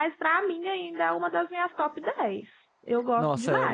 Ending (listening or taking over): taking over